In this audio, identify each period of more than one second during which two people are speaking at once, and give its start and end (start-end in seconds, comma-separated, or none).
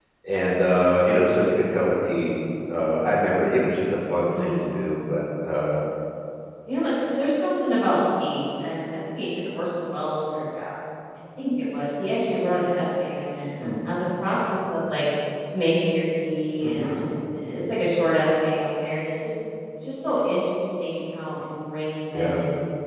none